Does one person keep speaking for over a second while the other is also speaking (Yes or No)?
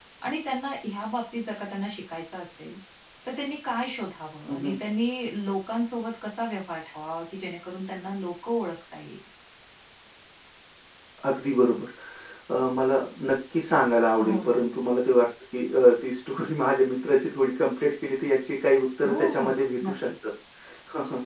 No